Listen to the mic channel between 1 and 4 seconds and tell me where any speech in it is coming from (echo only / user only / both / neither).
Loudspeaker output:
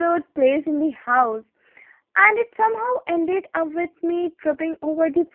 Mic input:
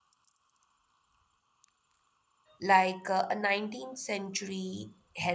user only